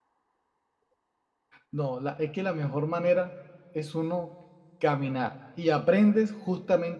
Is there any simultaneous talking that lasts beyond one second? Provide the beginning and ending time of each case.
none

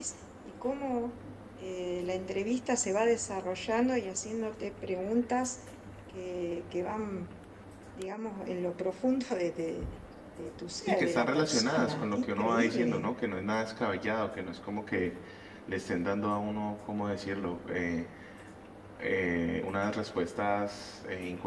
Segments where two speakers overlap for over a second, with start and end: 10.9-13.1

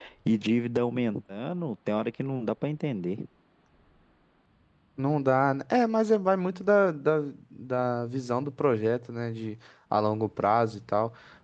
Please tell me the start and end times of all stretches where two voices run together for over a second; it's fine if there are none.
none

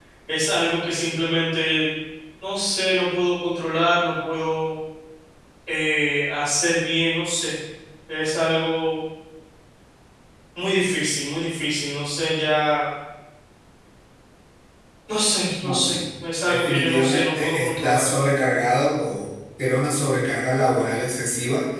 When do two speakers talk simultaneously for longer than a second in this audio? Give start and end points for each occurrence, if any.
16.5-18.1

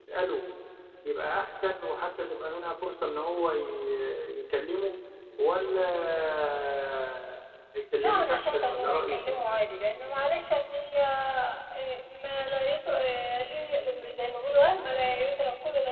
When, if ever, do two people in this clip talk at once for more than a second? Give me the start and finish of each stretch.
8.0-9.4

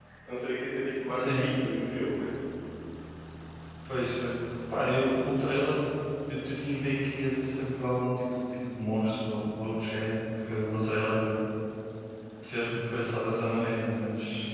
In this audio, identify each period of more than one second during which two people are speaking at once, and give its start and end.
none

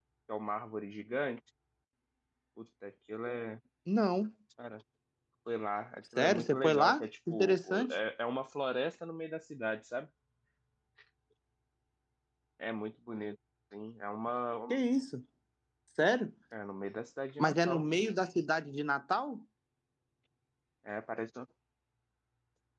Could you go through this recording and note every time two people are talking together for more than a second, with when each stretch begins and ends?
6.2-8.0

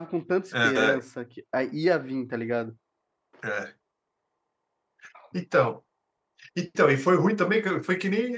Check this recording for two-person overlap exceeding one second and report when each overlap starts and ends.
none

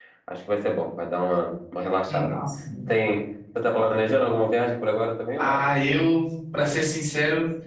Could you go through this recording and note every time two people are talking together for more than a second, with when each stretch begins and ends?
none

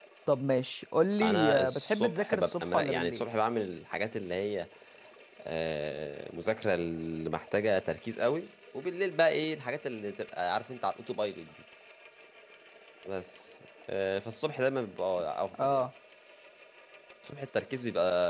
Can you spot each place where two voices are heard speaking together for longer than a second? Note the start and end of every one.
1.2-3.2

